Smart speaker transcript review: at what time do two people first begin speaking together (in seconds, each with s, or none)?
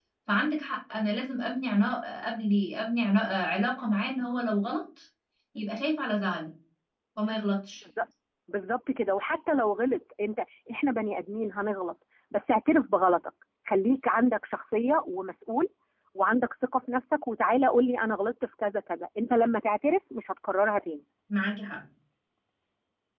none